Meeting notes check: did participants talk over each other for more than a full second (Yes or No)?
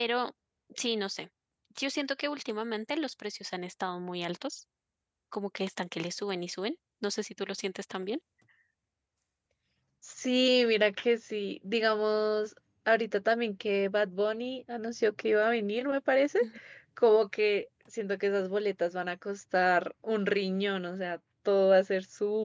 No